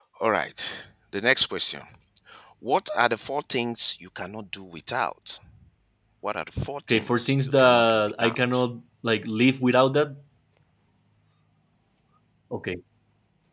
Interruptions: present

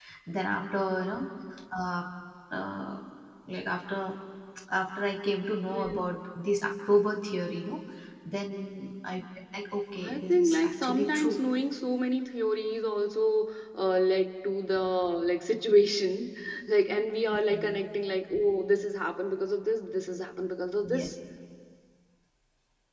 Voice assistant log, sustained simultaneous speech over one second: present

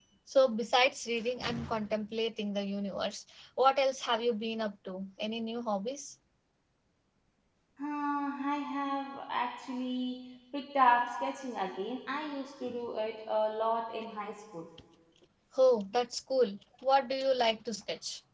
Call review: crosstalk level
none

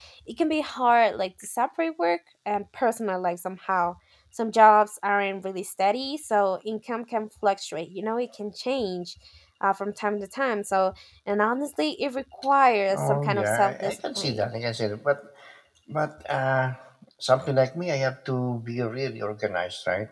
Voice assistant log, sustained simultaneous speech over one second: present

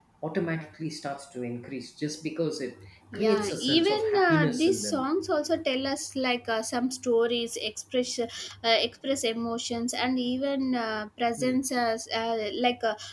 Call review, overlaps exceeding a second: present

